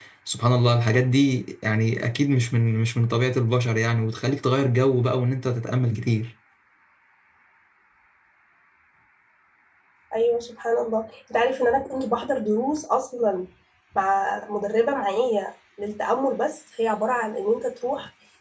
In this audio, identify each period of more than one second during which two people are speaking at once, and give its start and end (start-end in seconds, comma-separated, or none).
none